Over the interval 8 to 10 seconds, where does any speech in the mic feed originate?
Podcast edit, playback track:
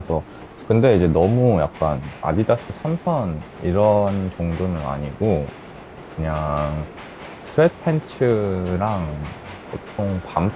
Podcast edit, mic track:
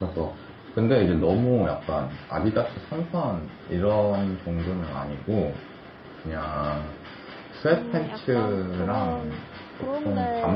both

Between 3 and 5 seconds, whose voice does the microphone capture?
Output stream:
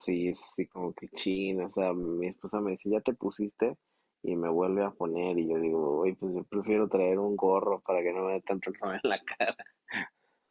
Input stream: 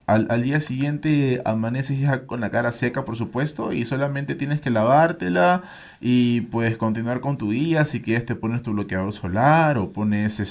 user only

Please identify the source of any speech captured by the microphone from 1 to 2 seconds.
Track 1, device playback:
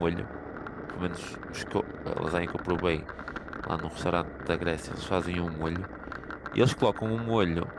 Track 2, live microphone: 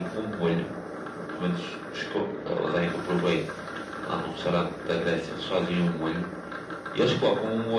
echo only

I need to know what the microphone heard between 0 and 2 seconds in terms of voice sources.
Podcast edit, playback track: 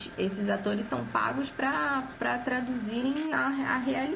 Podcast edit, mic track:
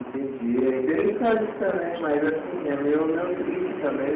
user only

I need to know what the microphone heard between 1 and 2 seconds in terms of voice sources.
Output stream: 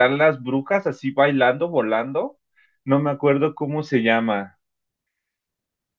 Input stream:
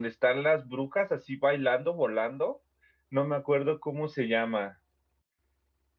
echo only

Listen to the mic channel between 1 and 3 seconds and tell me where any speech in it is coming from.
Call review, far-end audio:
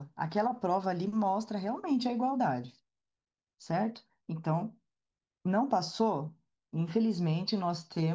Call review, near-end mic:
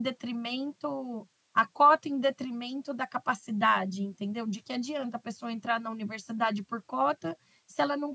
user only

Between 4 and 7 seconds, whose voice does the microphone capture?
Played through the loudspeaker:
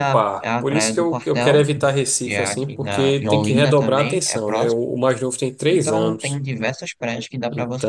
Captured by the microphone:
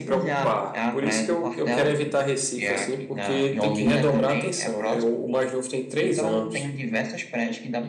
echo only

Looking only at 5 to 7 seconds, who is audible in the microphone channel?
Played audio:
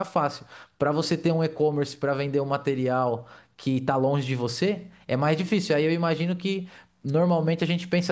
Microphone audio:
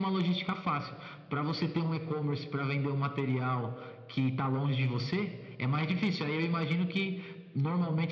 echo only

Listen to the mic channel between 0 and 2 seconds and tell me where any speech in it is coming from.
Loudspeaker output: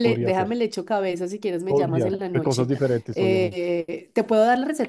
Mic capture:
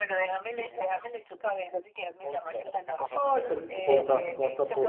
echo only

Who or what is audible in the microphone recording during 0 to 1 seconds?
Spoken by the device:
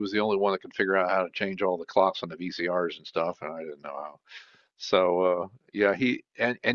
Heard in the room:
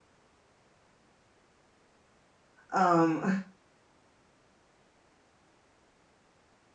neither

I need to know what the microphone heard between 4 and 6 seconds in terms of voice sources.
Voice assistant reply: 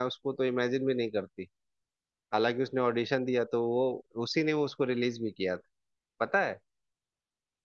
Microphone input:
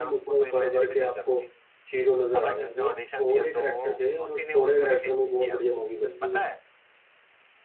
both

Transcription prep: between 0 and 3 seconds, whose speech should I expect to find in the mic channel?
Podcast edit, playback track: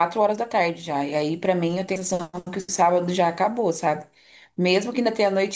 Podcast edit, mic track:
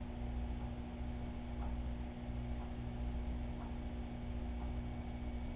neither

